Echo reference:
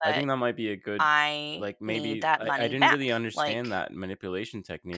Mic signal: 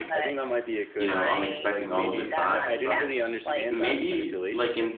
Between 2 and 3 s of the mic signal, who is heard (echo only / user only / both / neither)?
both